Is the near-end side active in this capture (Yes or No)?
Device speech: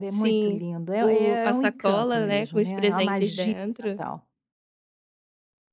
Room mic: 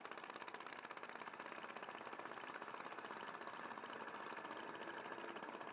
No